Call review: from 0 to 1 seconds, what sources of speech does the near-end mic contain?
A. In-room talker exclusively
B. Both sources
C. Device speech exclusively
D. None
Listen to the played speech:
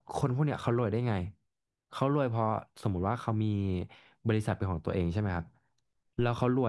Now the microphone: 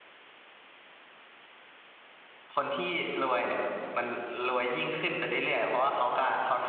D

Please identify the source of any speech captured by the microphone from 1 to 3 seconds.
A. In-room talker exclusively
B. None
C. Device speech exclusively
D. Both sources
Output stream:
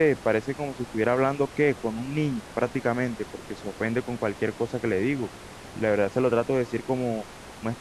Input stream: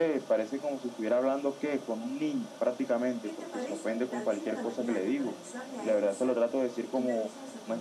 C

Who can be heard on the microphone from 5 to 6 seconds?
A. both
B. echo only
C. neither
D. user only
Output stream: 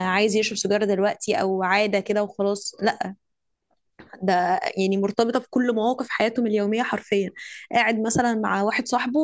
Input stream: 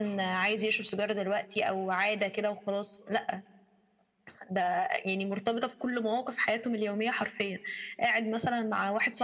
B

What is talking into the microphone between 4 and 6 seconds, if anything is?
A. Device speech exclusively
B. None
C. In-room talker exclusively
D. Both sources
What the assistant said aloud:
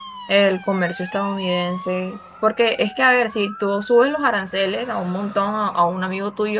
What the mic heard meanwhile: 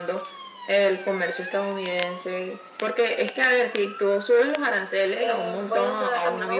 D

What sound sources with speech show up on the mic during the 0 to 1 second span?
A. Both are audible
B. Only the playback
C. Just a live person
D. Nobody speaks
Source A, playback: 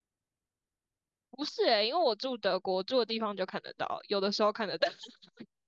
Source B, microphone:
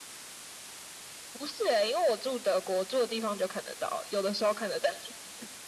D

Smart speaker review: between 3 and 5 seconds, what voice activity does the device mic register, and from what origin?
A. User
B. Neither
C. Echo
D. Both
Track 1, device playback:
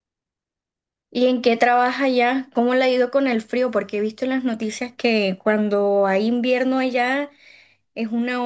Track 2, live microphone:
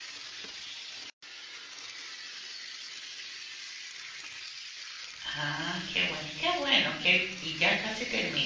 B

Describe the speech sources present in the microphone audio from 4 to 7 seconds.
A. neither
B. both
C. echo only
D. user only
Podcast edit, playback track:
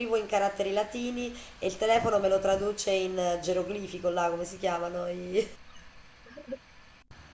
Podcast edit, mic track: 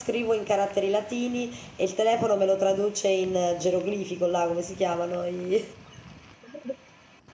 C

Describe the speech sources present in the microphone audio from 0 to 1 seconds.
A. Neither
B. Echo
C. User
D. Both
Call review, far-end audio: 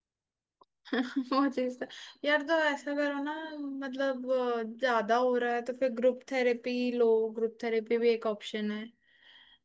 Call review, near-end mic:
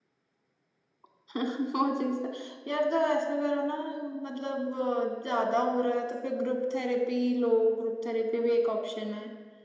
A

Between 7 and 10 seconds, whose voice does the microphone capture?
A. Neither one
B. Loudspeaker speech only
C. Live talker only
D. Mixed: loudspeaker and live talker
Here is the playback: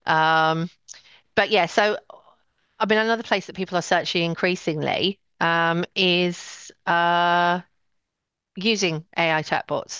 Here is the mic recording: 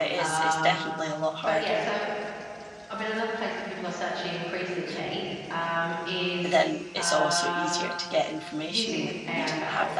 D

